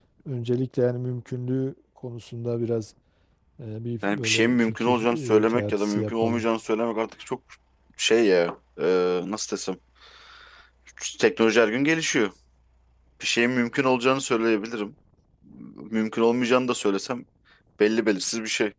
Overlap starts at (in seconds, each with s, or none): 4.0 s